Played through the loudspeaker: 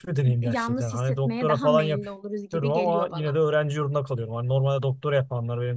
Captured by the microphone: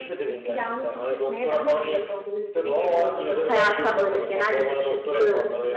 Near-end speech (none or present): present